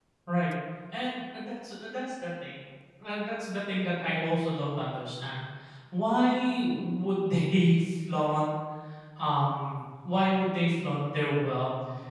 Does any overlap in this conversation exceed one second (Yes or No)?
No